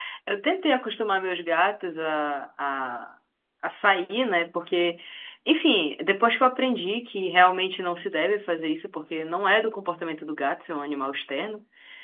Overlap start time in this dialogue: none

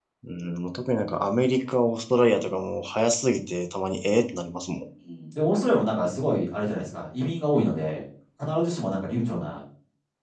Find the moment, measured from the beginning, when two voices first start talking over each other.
none

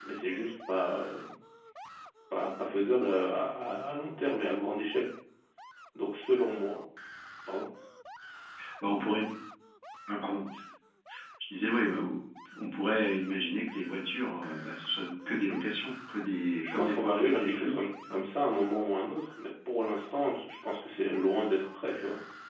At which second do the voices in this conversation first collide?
16.6 s

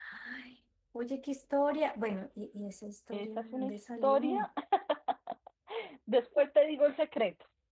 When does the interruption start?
3.1 s

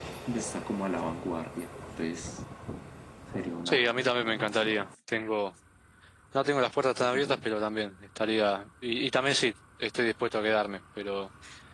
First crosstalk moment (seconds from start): 3.6 s

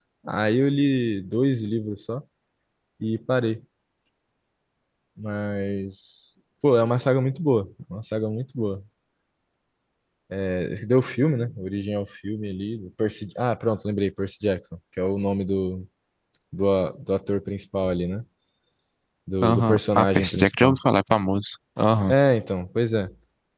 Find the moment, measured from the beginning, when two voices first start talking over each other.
19.4 s

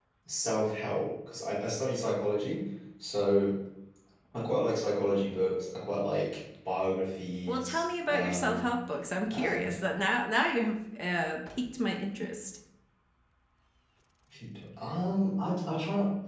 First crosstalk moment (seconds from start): 7.5 s

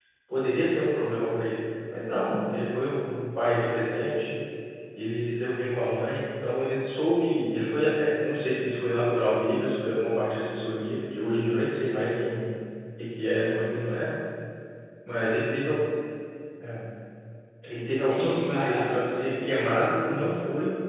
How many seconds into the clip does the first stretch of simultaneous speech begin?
18.1 s

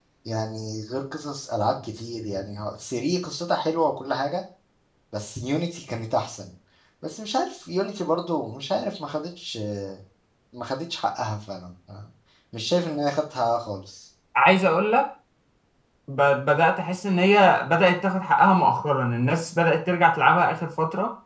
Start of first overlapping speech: none

